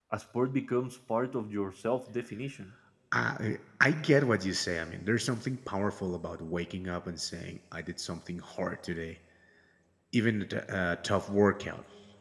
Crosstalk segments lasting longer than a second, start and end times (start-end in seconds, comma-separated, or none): none